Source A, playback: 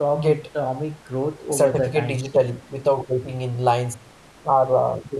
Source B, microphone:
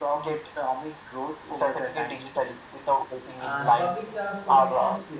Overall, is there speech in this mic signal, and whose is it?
both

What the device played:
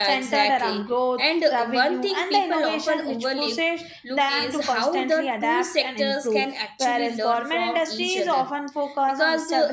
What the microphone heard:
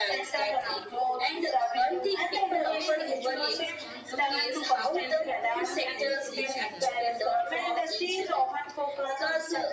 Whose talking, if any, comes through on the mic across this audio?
both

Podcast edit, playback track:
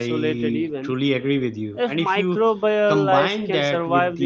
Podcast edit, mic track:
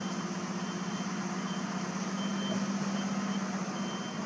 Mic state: neither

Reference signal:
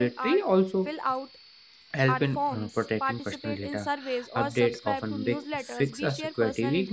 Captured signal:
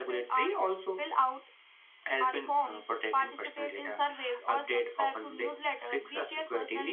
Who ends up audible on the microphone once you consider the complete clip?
echo only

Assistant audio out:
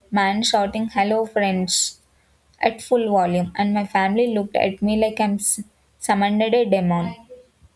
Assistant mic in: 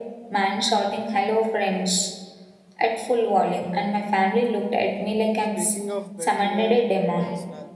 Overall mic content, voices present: both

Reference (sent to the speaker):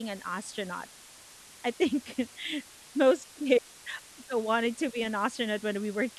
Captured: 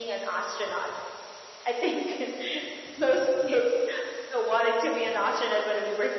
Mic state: echo only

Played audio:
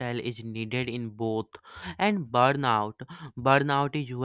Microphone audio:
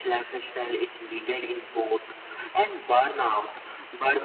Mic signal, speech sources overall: echo only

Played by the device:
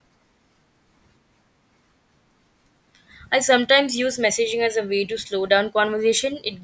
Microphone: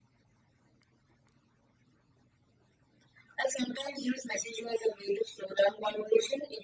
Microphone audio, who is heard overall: echo only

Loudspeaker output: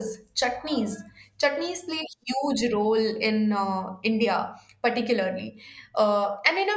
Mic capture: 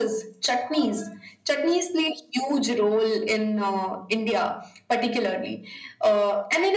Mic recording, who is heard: echo only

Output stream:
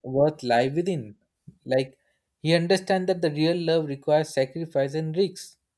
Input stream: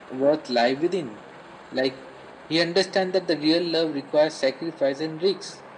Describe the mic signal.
echo only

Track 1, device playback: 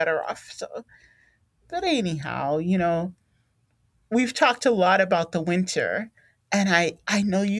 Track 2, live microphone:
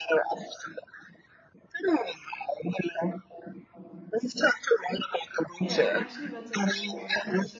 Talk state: both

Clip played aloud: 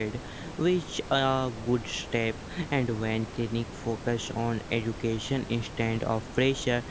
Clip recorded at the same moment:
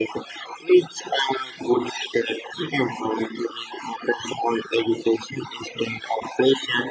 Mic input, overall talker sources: echo only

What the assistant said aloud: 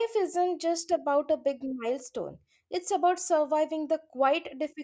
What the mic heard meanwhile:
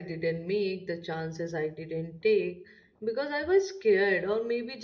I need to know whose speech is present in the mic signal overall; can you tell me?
user only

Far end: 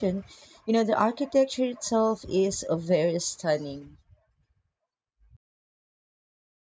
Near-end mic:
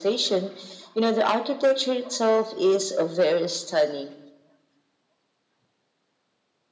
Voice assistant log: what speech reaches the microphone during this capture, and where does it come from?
echo only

